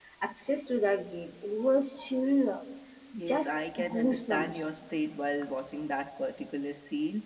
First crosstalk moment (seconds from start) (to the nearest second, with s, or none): 3 s